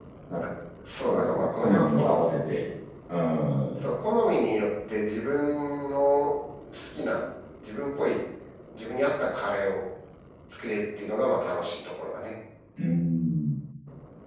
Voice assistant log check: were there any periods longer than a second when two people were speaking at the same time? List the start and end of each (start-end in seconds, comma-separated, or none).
1.1-2.3